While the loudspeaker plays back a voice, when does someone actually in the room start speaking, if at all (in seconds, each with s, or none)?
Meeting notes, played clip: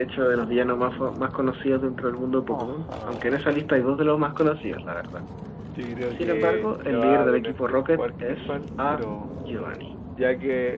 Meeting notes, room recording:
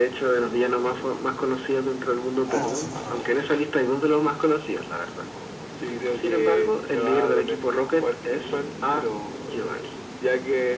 2.4 s